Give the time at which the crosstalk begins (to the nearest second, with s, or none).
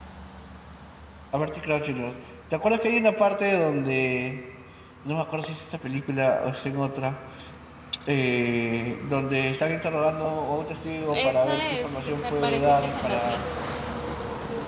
11 s